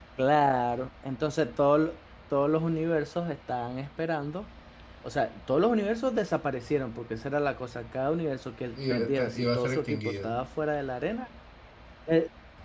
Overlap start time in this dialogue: 9 s

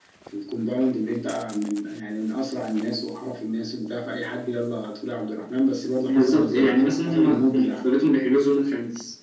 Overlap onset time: 6 s

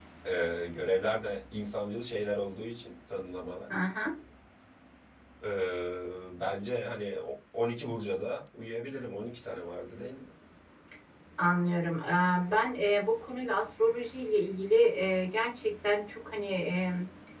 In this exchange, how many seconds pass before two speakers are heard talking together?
none

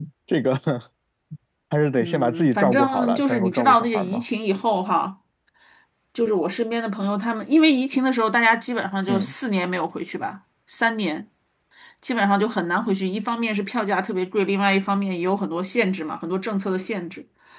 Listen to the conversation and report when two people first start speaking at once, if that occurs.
2 s

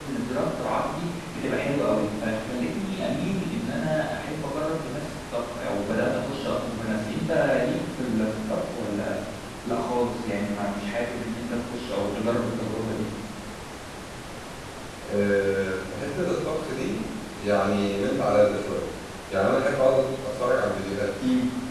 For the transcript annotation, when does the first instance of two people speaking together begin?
none

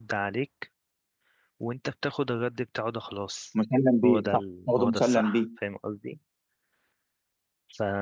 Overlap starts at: 4 s

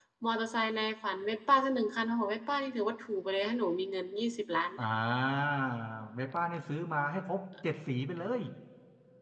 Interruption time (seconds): none

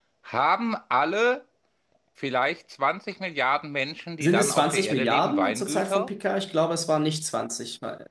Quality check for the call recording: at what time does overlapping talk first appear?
4 s

